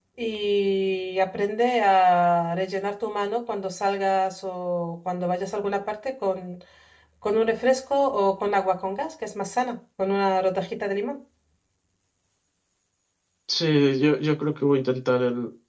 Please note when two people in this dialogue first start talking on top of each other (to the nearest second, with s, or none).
none